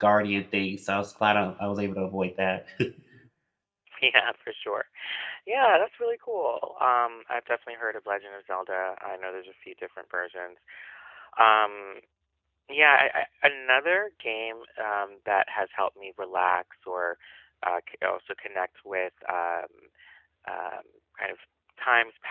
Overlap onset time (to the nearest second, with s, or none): none